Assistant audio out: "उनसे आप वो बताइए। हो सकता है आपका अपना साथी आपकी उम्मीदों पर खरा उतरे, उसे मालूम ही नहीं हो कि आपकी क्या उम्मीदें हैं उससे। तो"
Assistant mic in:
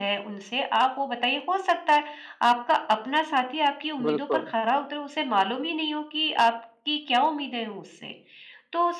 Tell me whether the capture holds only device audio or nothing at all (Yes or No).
No